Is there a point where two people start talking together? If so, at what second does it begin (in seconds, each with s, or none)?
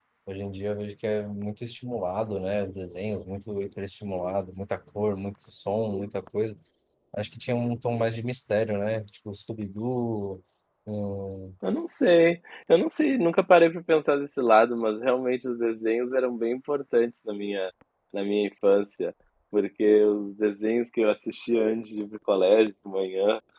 none